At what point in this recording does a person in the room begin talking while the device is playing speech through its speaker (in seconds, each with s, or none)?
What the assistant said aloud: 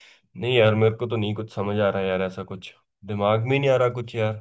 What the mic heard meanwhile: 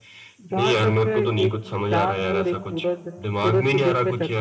0.4 s